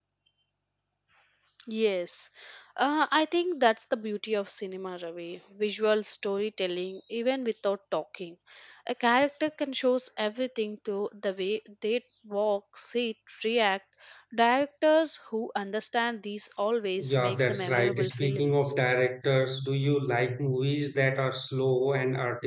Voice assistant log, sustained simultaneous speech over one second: present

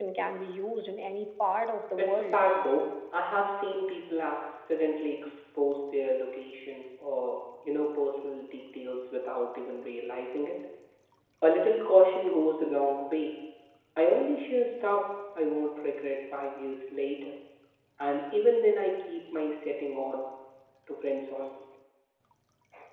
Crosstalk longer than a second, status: none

